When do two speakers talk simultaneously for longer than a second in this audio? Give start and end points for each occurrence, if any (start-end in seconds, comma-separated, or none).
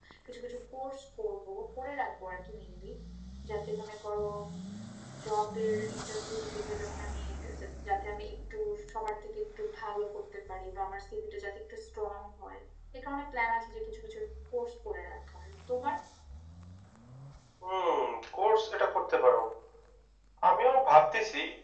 none